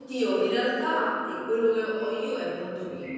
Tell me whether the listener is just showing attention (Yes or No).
No